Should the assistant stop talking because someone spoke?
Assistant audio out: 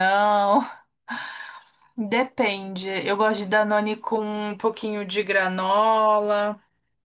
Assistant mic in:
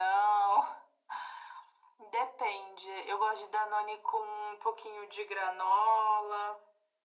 No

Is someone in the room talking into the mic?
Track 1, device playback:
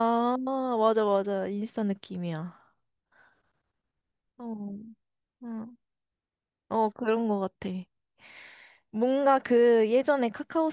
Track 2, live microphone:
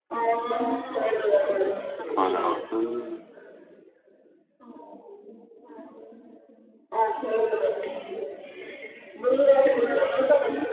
Yes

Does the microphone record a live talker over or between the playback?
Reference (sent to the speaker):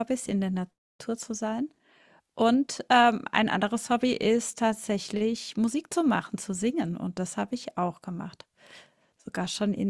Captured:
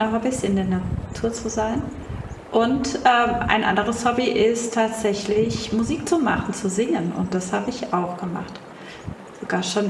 No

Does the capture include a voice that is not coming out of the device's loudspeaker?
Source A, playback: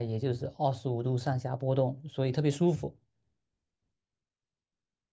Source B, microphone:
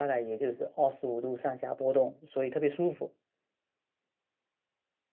No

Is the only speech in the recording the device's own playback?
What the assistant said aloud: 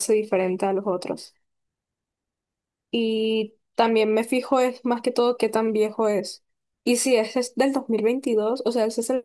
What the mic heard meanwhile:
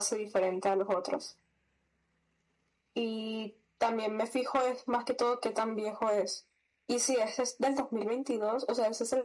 Yes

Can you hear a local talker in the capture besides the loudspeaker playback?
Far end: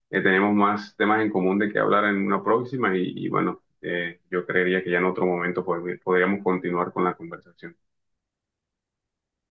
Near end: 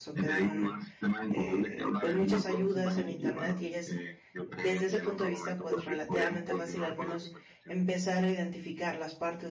Yes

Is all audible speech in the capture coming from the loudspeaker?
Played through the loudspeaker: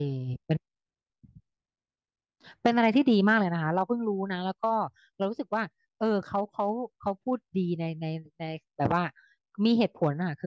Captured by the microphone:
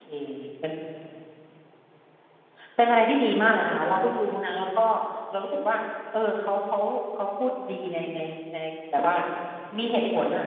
Yes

